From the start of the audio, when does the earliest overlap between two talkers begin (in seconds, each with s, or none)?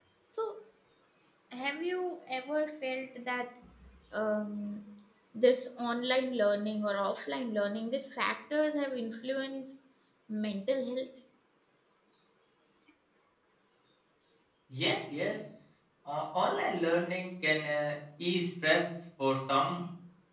none